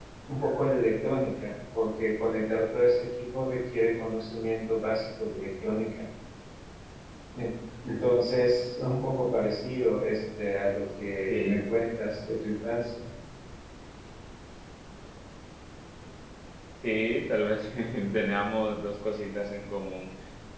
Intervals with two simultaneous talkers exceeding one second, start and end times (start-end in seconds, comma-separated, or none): none